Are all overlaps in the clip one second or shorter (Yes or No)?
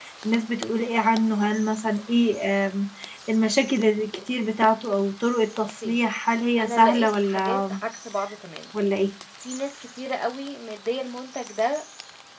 No